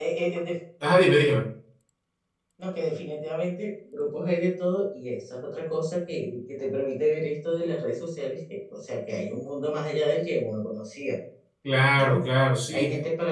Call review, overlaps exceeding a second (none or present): none